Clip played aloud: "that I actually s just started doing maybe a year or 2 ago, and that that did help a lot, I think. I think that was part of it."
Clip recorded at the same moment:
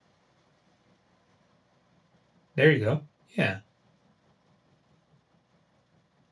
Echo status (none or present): none